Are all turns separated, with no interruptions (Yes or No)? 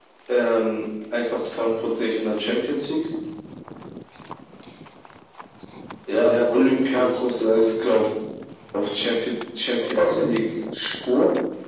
No